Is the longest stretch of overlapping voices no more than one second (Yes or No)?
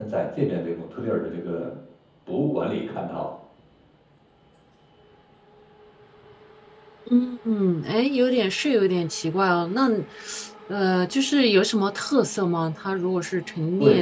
Yes